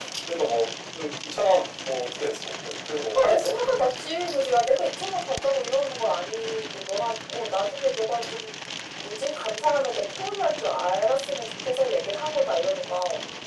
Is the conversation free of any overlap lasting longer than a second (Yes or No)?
Yes